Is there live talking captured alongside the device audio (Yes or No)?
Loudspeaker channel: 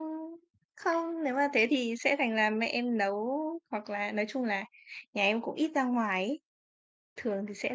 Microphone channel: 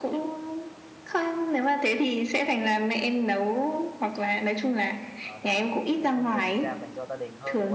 Yes